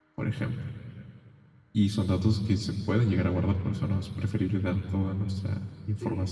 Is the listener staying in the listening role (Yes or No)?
No